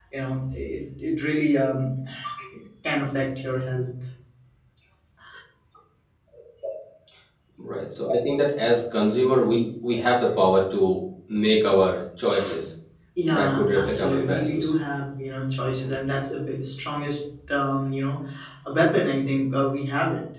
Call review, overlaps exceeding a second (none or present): present